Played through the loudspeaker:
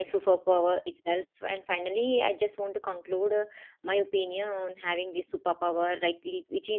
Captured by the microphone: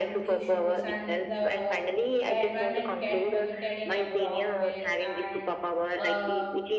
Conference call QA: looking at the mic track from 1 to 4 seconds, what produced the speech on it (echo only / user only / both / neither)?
both